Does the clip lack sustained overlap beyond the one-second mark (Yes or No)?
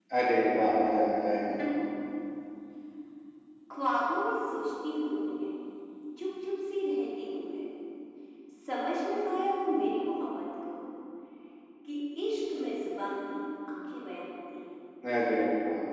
Yes